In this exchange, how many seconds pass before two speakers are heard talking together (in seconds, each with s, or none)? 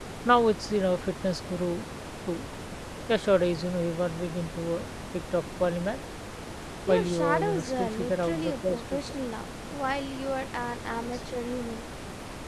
6.9 s